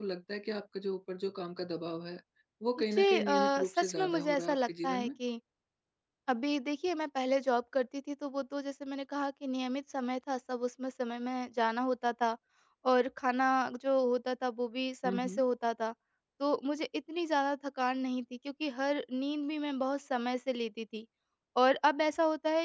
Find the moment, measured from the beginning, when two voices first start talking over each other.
3 s

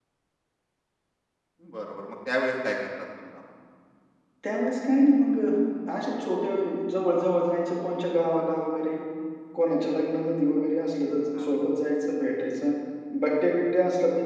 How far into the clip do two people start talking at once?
none

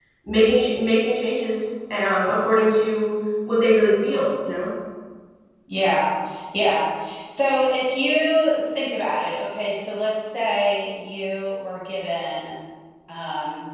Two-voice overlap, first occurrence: none

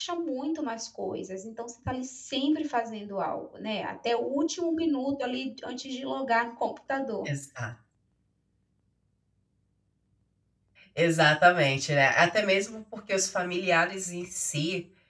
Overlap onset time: none

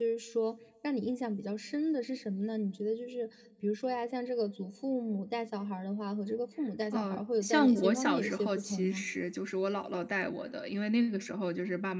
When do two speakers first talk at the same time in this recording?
7 s

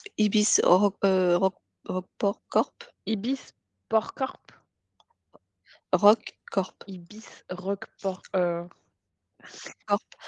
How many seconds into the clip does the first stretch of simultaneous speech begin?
none

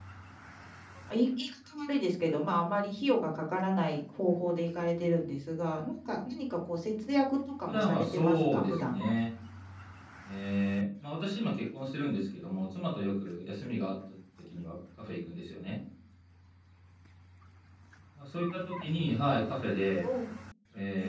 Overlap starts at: 8 s

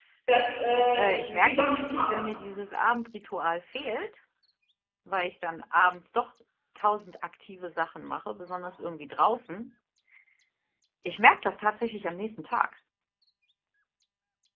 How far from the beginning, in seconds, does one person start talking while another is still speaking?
1 s

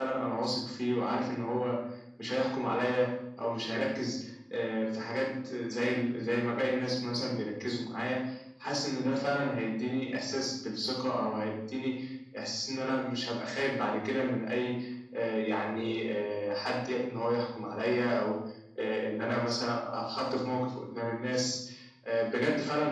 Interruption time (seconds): none

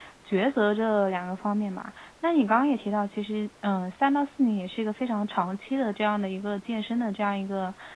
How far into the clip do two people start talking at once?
none

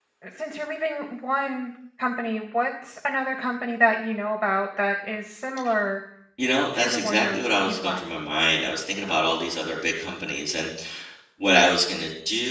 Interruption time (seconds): 7 s

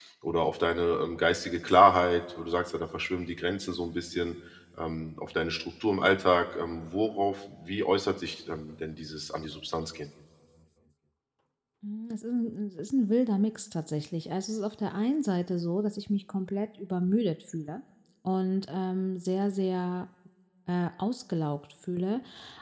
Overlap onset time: none

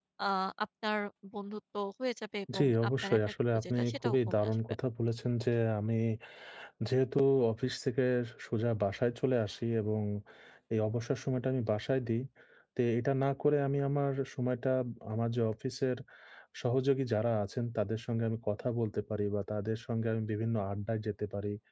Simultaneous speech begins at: 2 s

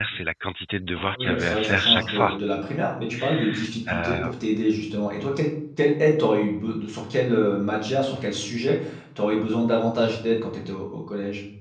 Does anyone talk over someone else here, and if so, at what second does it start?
1 s

